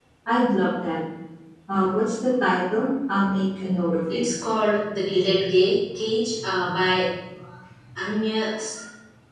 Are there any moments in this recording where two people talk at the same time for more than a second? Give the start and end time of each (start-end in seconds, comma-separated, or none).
none